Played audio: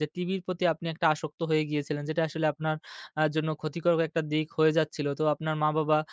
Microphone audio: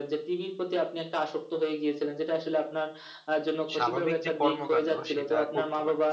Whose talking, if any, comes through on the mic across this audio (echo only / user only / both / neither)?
both